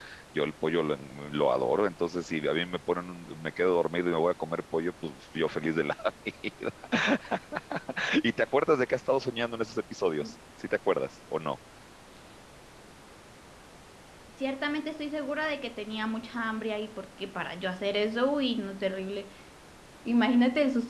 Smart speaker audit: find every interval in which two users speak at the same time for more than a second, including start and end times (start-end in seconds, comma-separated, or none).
none